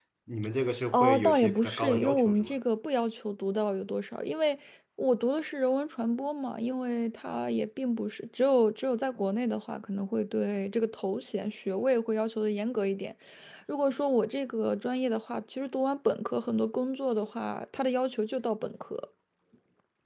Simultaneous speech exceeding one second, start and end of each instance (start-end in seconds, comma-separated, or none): 0.9-2.6